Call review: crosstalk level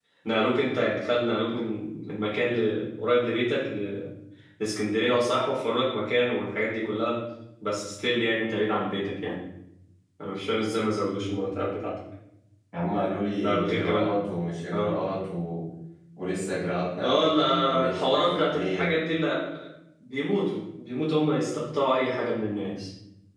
present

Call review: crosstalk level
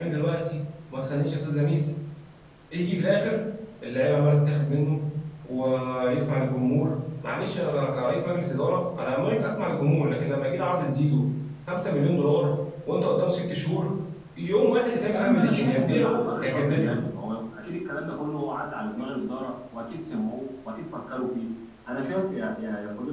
present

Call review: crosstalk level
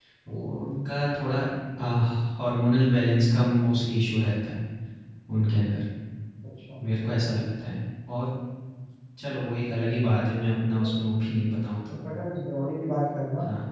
none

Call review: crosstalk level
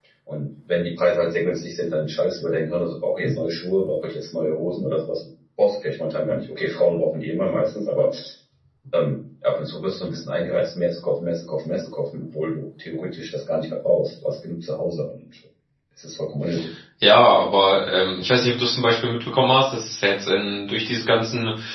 none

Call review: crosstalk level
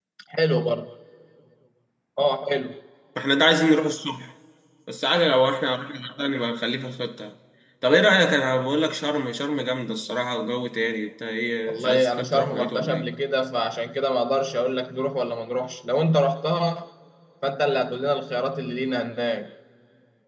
present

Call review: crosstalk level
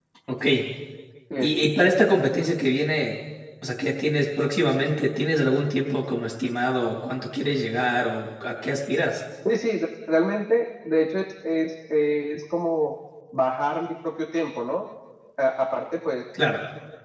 none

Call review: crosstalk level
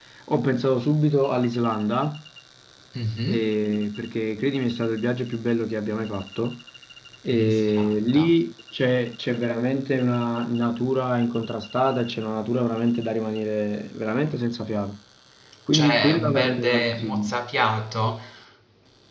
present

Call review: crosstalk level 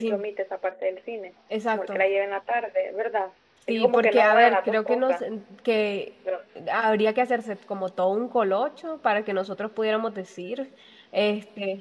present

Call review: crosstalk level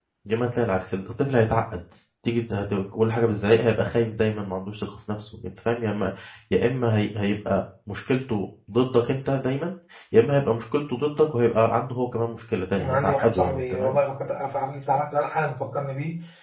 present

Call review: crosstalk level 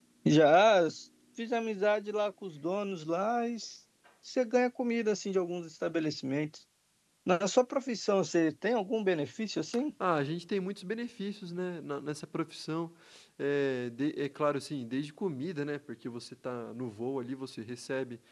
none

